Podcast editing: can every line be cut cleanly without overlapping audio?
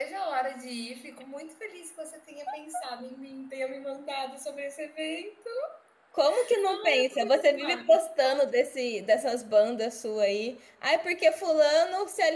No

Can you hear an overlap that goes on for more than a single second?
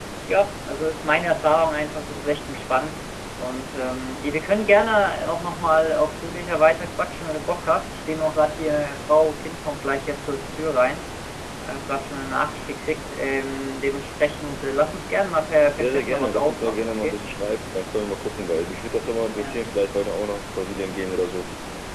Yes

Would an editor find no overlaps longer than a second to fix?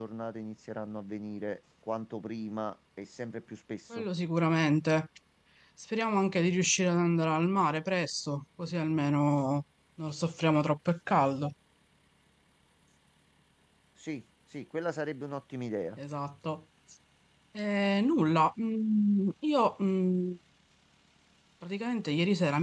Yes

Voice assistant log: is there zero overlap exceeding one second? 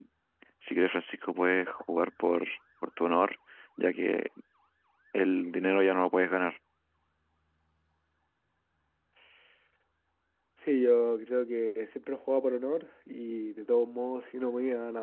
Yes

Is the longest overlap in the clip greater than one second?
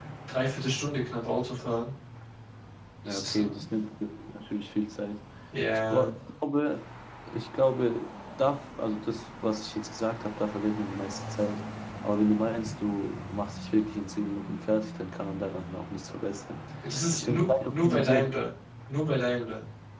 Yes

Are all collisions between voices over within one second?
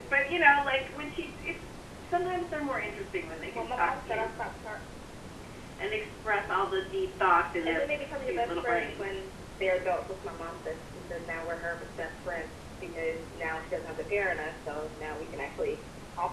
No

